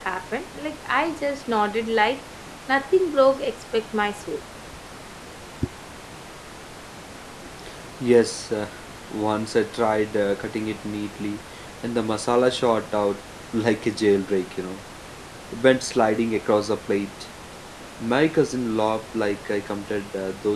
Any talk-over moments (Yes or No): No